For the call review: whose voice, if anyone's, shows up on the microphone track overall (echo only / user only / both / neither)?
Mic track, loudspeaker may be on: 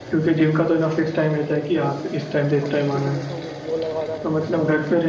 both